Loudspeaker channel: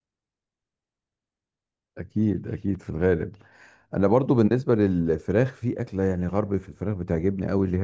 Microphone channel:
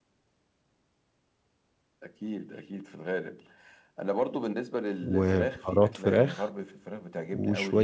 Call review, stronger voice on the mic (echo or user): user